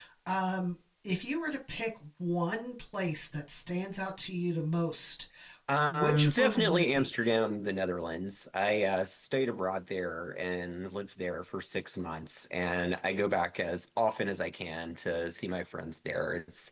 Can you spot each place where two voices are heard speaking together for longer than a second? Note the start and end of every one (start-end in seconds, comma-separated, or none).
5.9-7.1